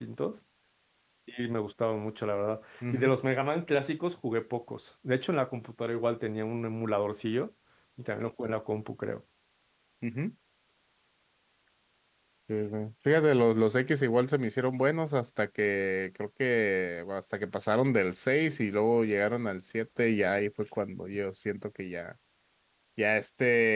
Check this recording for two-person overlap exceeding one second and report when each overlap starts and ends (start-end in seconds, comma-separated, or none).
none